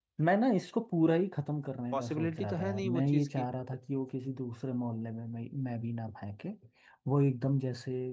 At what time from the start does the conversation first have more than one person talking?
1.9 s

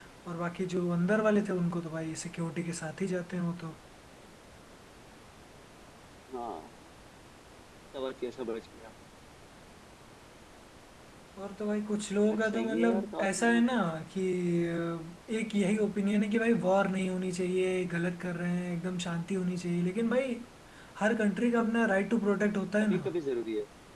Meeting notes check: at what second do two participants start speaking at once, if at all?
12.3 s

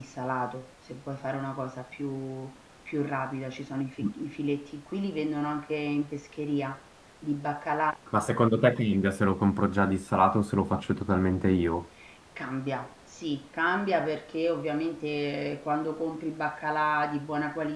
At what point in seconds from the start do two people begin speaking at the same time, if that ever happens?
none

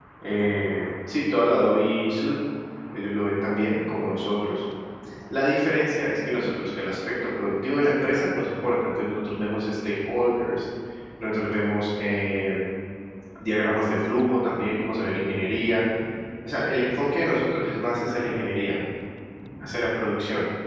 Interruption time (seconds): none

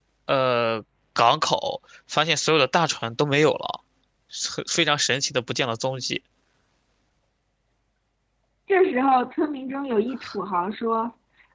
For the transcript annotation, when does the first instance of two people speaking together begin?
none

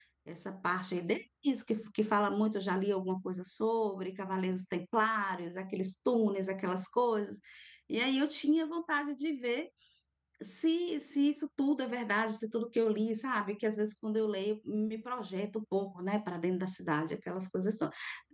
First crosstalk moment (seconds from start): none

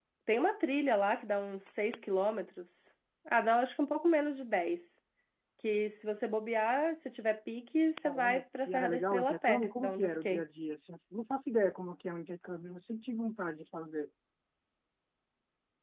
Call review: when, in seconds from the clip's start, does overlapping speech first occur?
8.0 s

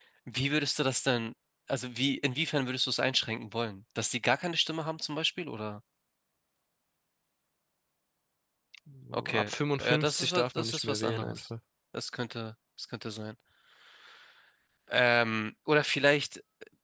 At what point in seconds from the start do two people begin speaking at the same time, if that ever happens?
9.1 s

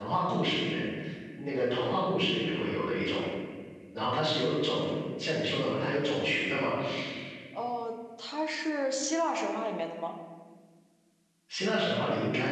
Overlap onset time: none

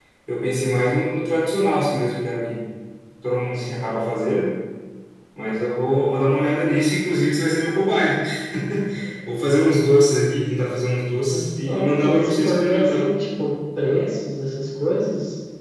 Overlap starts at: 11.3 s

